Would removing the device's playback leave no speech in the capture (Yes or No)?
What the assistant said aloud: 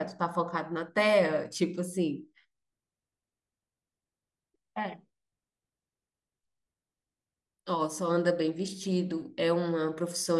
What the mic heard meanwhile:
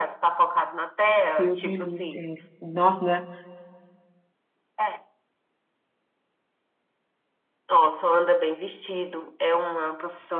No